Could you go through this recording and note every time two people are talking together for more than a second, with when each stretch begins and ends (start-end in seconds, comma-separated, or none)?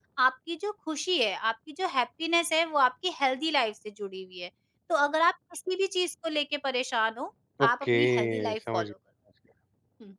7.6-8.9